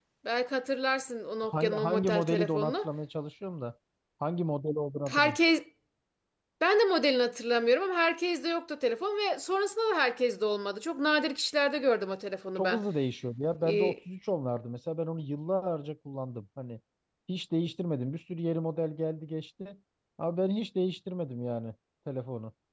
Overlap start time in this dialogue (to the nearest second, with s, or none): 1 s